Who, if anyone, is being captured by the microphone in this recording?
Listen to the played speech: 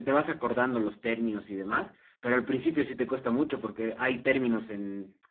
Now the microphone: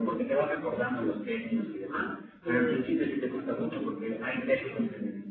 both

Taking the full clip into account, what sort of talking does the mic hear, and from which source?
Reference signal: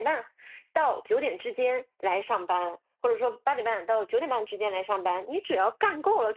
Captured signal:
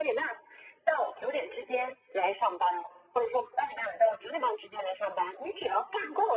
echo only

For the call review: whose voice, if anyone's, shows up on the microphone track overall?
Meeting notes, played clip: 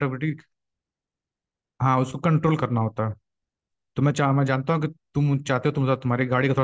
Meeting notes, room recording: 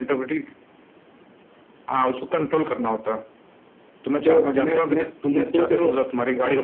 both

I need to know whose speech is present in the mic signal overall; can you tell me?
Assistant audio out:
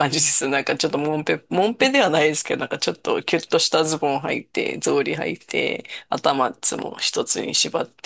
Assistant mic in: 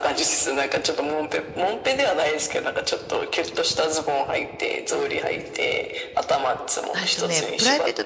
both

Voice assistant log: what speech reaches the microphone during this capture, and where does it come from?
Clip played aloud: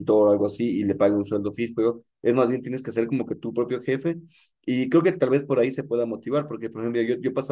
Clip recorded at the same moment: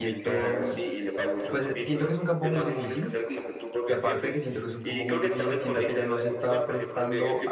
both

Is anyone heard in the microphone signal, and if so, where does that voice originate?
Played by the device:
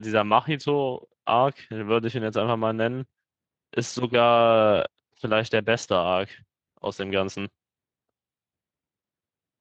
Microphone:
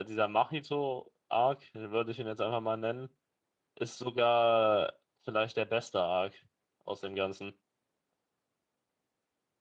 echo only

